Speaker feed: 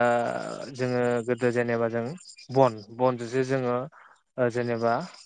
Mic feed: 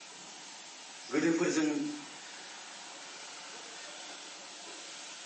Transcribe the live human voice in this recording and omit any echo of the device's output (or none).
गोदोफोरजों